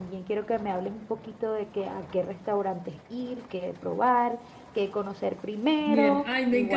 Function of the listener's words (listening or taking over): taking over